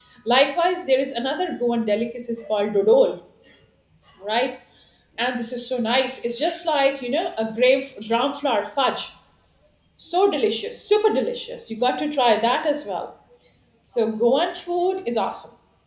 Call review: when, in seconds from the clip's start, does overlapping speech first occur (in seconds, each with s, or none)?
none